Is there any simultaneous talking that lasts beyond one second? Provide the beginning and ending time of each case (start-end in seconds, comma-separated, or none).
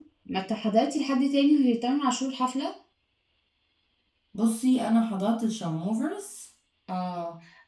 none